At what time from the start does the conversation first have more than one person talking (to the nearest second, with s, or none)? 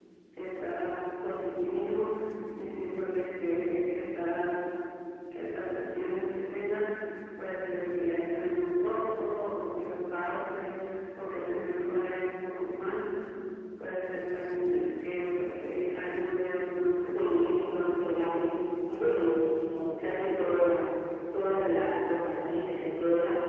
17 s